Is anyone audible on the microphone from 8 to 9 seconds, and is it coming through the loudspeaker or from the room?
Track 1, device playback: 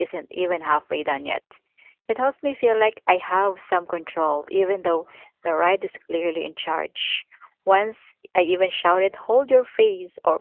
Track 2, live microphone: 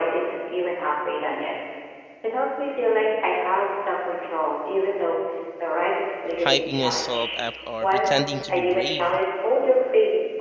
both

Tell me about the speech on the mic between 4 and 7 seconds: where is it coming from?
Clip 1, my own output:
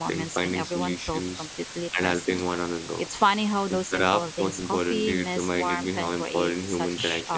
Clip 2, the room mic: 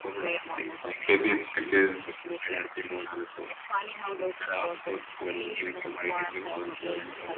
echo only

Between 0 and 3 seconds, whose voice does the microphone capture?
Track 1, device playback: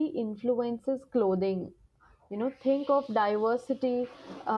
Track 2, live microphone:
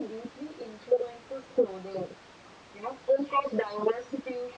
echo only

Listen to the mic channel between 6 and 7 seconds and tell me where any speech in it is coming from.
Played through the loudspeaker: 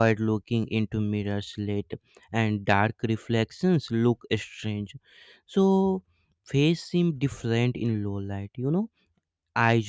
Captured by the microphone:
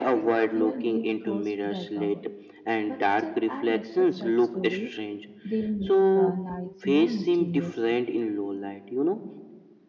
both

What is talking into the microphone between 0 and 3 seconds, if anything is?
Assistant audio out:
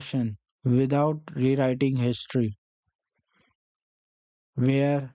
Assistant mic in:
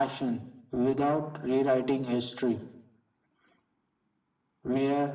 echo only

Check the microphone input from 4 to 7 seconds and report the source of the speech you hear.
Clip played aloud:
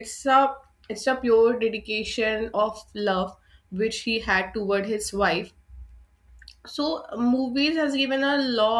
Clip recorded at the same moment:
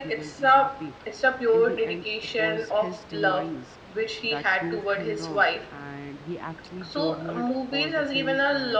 both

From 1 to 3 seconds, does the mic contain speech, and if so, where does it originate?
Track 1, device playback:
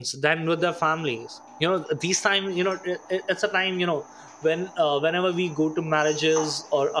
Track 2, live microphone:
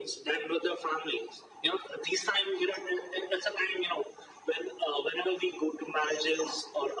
echo only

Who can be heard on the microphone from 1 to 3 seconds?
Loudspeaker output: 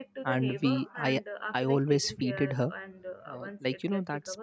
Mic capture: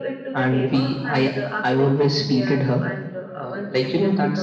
echo only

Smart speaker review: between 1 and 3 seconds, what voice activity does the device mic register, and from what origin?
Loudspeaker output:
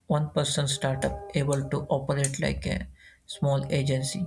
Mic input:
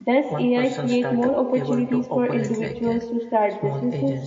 both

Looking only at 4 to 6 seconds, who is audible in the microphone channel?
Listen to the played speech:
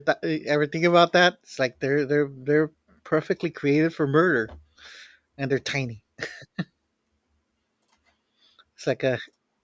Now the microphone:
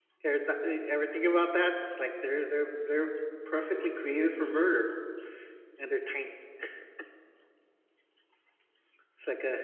echo only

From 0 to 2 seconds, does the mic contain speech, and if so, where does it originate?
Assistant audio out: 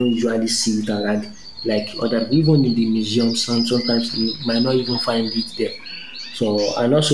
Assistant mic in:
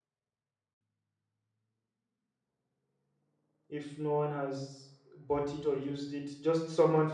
neither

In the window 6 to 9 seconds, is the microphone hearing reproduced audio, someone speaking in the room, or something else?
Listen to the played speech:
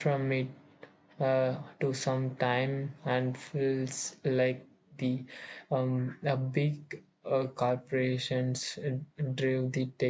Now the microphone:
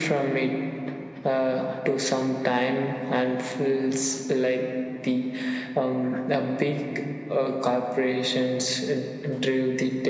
echo only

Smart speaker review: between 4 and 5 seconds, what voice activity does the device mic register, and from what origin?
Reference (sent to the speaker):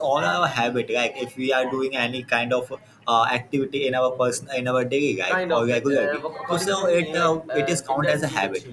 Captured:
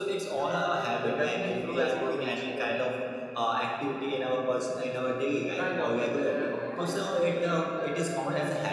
echo only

